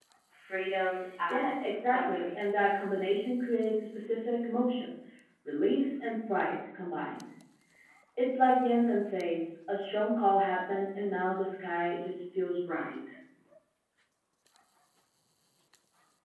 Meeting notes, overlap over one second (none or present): present